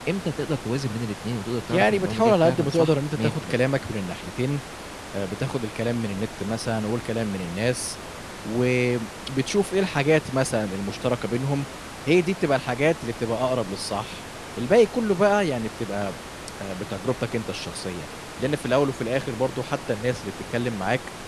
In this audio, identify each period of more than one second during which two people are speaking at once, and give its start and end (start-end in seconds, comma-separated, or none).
1.7-3.6